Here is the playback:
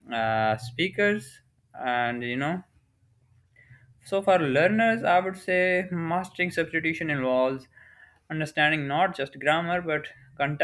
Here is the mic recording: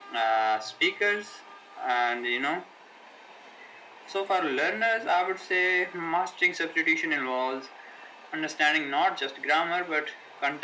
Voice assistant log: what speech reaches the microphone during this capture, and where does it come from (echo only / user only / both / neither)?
echo only